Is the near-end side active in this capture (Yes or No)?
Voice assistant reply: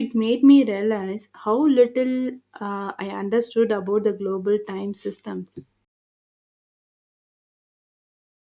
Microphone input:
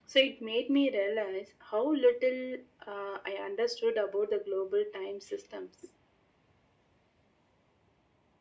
No